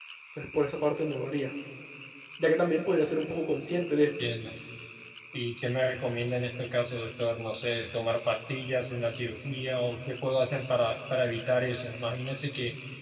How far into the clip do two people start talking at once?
none

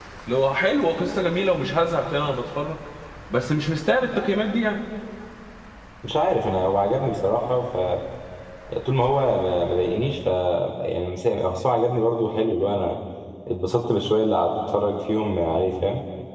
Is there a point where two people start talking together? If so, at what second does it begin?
none

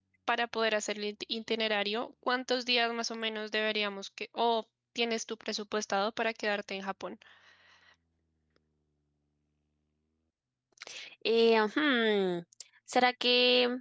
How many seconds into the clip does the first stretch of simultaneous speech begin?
none

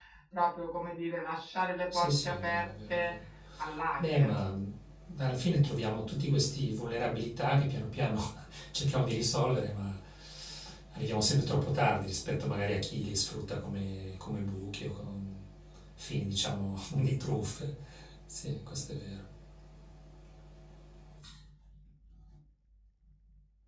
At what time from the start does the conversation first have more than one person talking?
1.9 s

